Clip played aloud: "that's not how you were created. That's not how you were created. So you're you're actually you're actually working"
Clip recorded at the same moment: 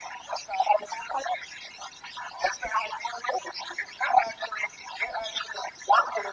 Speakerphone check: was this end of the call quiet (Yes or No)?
Yes